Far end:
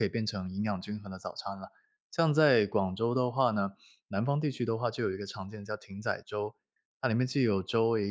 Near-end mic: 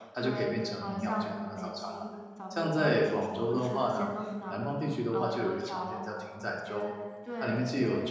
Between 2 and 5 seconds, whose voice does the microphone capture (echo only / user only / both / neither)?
both